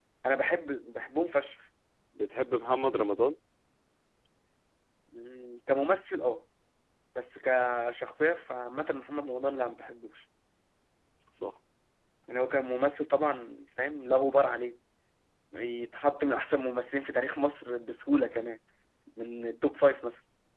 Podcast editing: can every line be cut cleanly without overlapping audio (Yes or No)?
Yes